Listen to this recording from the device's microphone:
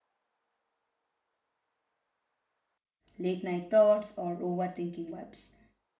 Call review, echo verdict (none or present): none